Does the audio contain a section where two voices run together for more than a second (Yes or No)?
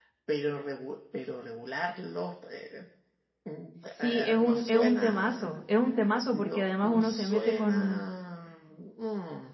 Yes